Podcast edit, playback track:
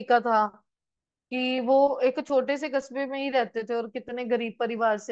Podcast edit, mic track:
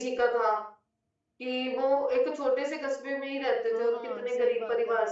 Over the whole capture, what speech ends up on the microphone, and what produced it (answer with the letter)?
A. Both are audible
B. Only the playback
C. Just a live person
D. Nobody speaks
A